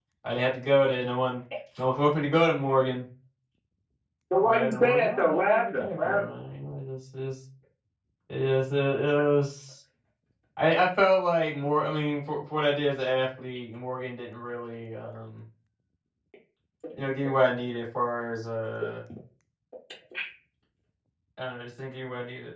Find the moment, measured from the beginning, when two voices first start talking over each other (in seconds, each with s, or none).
4.4 s